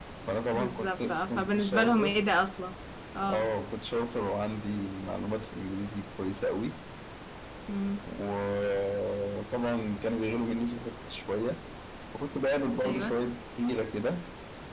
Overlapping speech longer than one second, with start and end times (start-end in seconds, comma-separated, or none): 0.5-2.2